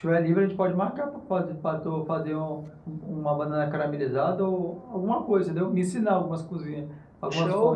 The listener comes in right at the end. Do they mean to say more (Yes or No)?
Yes